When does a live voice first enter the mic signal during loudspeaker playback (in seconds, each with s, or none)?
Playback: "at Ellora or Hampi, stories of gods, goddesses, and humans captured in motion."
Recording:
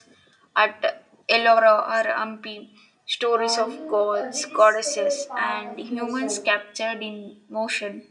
3.3 s